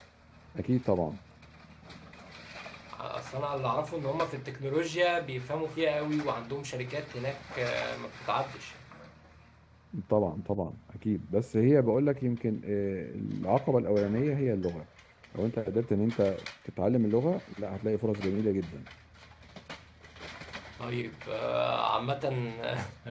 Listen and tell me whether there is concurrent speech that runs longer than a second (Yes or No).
No